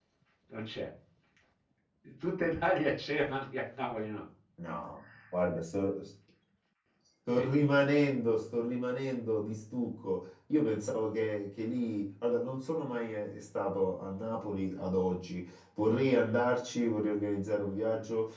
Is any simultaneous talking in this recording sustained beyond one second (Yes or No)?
No